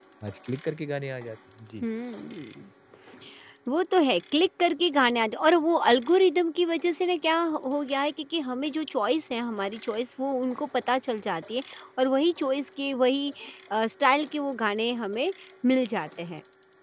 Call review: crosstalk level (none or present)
none